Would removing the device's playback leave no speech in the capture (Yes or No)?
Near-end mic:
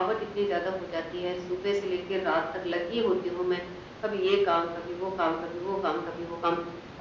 Yes